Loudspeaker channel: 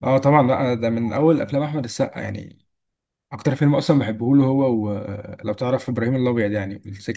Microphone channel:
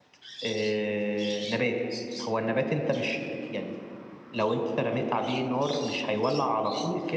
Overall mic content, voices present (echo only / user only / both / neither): user only